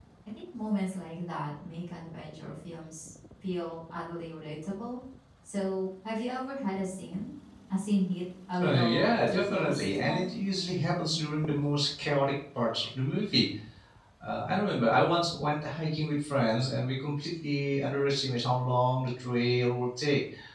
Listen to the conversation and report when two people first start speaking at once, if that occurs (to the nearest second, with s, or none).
9 s